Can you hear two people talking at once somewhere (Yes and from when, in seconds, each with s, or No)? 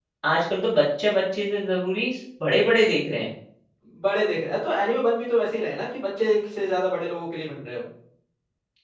No